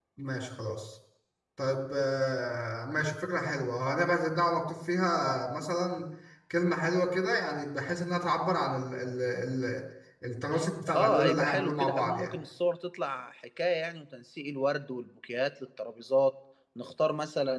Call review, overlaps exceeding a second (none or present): present